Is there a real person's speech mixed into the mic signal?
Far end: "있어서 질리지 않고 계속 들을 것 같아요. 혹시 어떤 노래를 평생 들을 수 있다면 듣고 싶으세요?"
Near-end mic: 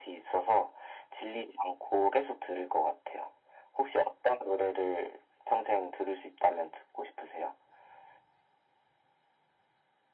No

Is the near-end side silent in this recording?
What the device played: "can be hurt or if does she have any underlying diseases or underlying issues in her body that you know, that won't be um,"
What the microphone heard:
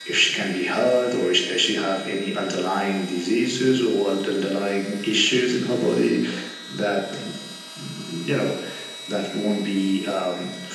Yes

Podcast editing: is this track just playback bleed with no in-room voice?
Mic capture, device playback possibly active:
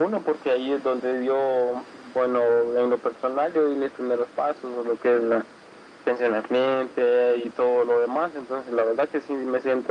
Yes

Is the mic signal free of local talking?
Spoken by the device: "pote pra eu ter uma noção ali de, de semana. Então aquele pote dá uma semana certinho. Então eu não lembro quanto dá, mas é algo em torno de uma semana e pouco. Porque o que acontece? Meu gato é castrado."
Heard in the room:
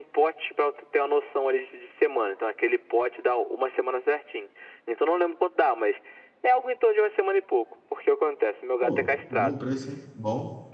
No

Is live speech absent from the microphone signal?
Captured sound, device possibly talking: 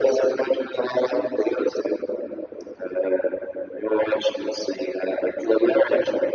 Yes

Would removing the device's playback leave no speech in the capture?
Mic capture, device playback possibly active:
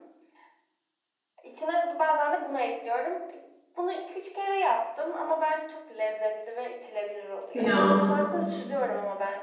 No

